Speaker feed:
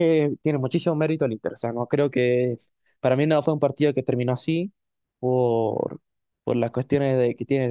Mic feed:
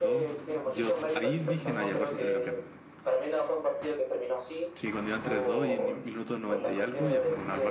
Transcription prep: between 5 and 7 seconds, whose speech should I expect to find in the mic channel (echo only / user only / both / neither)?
both